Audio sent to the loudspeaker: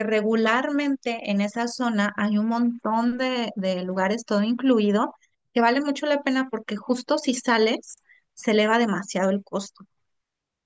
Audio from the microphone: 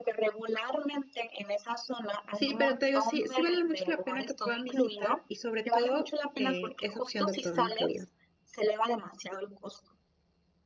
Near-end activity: present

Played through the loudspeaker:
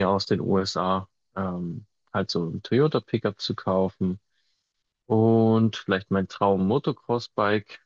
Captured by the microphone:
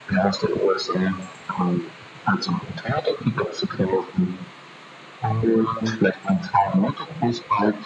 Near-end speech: none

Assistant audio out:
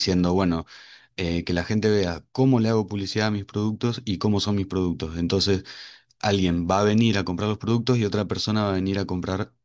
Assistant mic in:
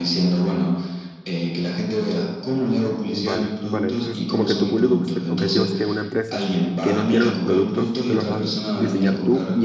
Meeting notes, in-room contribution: present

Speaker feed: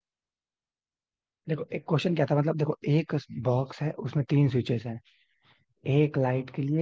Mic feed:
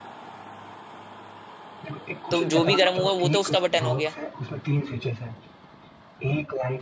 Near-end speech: present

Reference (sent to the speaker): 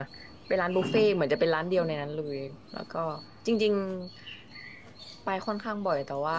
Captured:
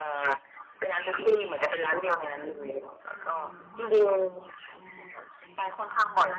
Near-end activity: present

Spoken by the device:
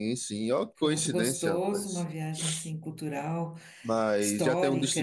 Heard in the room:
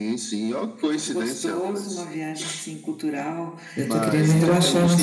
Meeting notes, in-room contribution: present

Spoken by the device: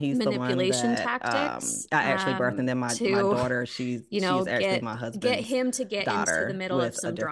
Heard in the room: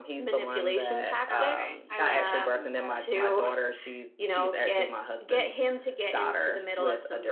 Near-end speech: present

